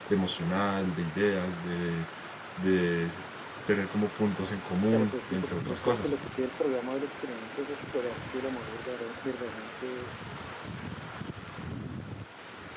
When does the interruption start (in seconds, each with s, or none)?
4.9 s